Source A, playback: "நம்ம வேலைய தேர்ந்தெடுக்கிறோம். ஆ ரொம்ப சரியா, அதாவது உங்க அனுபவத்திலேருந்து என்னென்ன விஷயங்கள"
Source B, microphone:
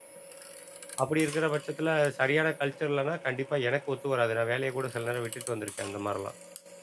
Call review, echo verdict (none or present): none